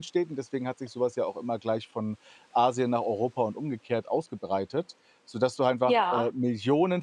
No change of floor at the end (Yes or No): Yes